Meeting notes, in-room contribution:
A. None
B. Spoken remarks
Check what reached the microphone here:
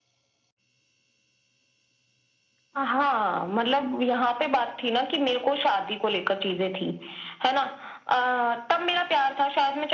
A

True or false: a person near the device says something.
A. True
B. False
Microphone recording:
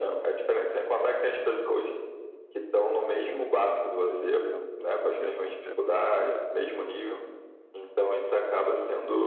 A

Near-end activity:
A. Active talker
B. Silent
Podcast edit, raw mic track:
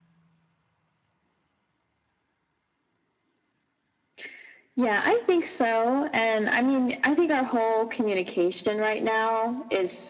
B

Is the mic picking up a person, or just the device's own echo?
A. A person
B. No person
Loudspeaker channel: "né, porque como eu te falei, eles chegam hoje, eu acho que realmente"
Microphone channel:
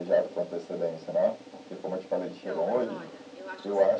A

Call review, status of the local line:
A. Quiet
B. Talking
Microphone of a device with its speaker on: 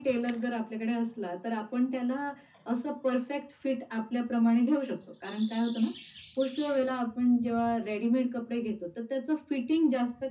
A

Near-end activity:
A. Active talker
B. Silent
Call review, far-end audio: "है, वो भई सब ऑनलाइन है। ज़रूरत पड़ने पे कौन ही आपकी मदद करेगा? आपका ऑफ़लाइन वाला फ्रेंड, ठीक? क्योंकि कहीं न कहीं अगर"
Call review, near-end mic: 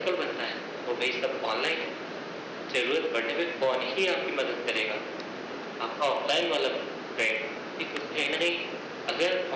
B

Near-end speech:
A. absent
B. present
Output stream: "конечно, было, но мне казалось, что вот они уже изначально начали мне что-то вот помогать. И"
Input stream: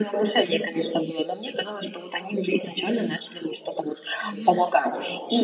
B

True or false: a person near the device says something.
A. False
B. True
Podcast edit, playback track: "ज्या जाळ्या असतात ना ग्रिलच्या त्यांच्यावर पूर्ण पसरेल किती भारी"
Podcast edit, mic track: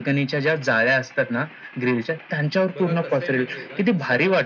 B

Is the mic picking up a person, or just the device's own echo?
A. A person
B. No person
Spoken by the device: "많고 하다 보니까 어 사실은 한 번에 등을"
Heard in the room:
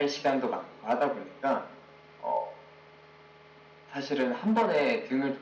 B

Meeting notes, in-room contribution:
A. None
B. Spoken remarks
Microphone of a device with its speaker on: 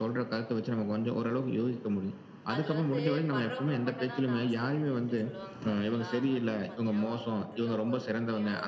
B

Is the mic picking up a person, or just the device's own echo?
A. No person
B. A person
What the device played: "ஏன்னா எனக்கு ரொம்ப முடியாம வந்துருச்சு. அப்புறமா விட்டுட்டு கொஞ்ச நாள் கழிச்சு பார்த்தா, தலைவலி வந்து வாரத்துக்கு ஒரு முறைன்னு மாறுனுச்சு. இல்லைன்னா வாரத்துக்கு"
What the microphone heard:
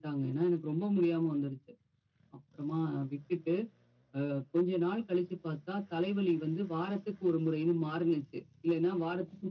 A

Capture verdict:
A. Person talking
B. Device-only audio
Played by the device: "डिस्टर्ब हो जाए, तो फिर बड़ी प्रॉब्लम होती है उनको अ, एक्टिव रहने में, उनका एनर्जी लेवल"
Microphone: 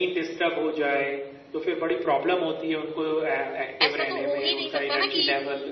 A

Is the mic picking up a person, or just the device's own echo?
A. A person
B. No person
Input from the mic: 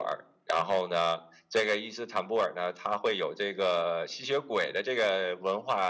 B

